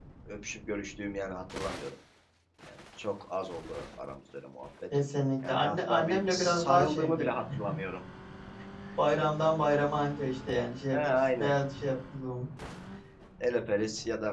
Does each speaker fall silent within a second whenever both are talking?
No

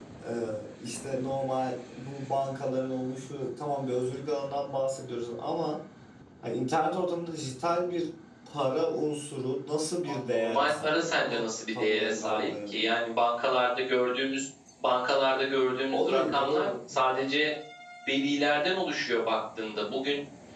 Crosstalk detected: Yes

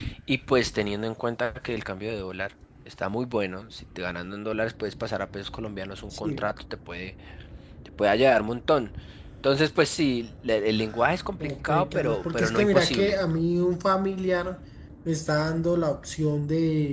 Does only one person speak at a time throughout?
No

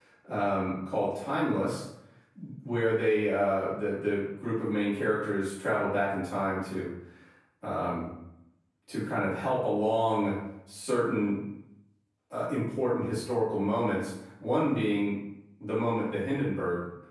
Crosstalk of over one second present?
No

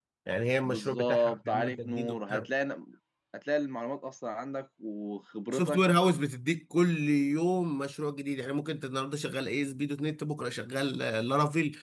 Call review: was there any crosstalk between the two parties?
Yes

